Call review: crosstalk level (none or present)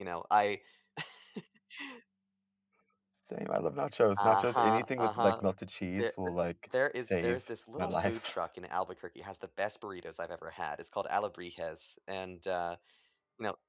present